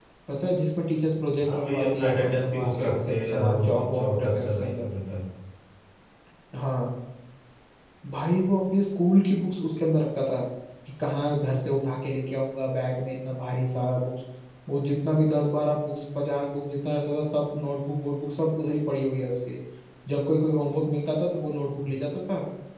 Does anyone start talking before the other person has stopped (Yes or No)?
Yes